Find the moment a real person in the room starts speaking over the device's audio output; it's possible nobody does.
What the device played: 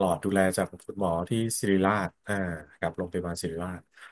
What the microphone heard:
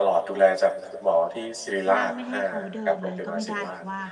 2 s

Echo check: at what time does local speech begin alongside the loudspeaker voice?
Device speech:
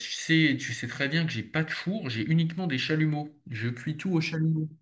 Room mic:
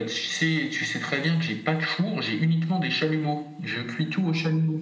none

